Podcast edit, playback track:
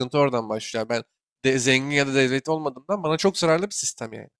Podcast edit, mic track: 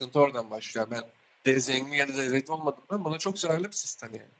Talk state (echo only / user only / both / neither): echo only